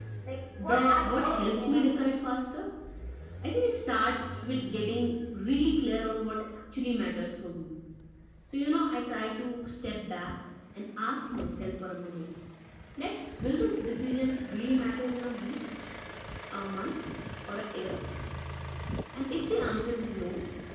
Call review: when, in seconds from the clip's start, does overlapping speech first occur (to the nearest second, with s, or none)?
1 s